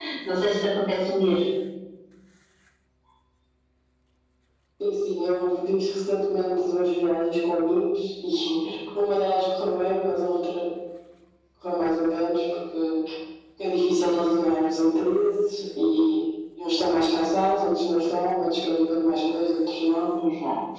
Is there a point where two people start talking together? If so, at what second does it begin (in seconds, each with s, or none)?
none